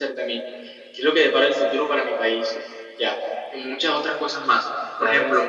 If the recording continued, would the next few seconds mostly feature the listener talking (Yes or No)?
No